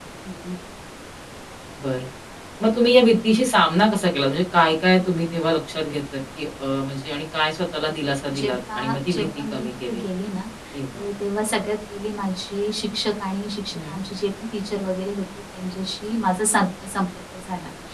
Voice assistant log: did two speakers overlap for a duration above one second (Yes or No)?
Yes